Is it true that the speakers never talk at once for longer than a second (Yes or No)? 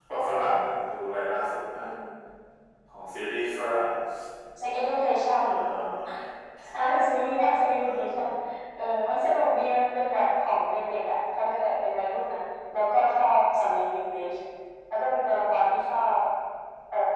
Yes